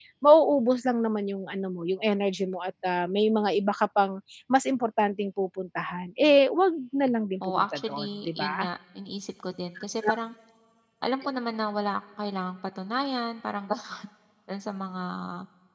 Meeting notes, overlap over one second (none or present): present